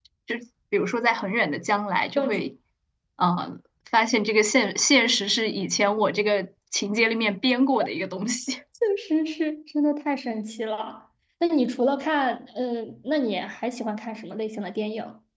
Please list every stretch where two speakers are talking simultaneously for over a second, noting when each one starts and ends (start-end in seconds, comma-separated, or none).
none